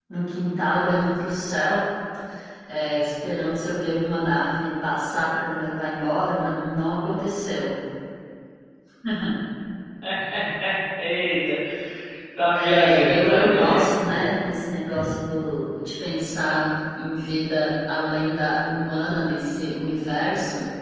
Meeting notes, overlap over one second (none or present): present